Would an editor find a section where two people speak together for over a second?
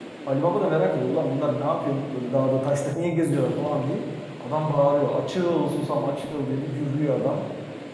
No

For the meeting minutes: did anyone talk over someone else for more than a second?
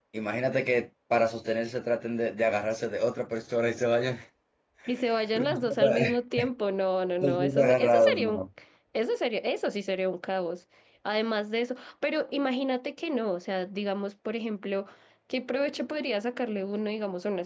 Yes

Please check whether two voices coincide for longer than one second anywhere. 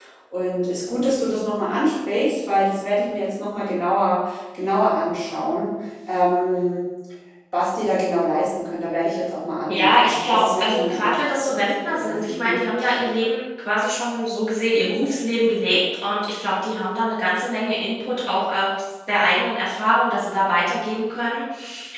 Yes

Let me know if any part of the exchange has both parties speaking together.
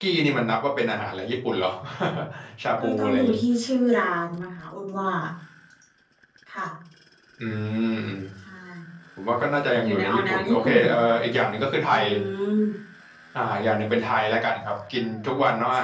Yes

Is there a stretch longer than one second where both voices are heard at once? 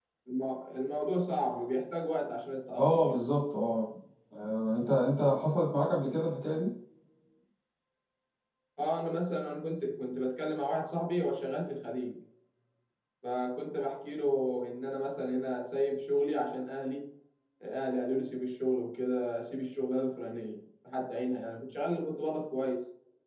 No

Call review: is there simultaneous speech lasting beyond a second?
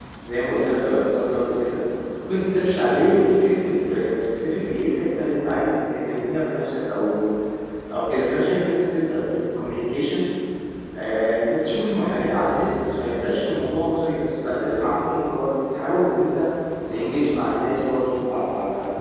No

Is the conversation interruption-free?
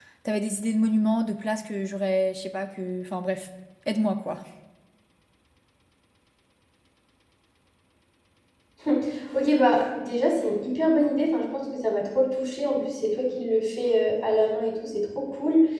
Yes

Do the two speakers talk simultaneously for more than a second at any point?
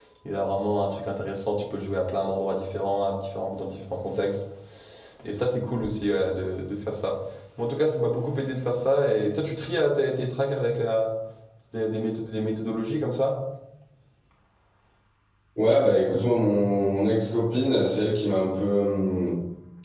No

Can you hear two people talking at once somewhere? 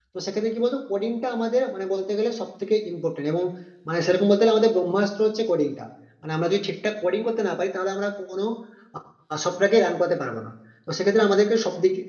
No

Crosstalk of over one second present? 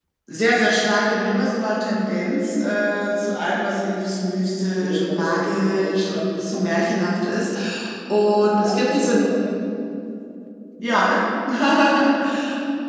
Yes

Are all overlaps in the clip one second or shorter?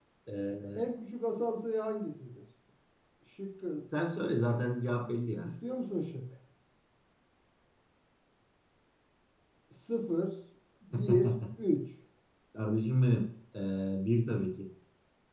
Yes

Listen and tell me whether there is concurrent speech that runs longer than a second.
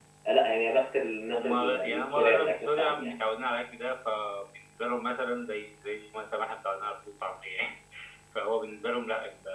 Yes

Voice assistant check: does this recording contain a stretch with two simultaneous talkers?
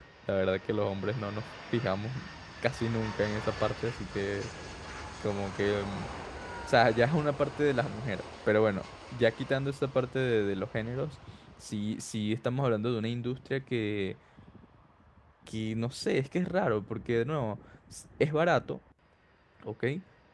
No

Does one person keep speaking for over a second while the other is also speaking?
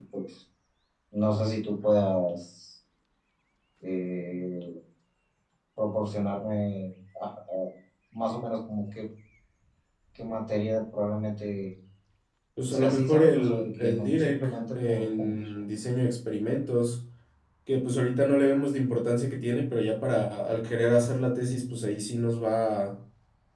Yes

